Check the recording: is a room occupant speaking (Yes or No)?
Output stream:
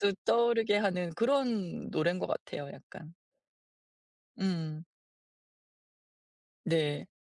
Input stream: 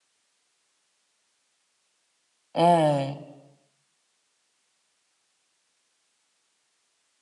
Yes